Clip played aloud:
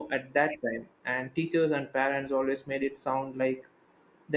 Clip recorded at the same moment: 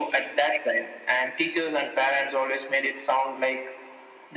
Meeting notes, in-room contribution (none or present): none